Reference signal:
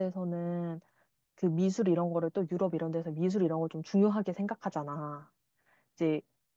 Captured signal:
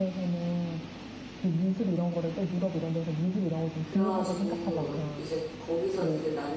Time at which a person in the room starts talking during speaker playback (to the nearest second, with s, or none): 4 s